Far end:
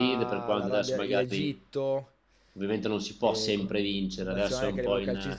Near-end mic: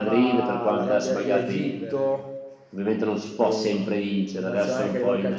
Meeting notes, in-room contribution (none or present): present